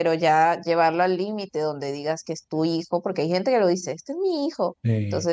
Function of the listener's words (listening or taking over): listening